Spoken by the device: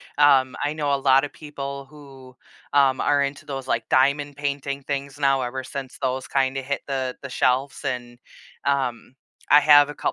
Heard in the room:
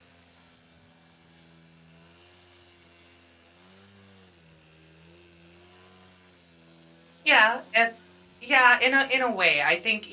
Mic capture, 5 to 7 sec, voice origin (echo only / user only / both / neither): neither